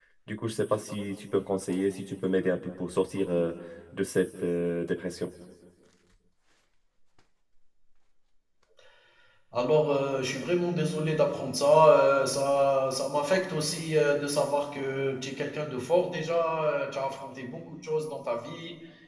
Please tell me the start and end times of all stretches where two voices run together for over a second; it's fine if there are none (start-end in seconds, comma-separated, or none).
none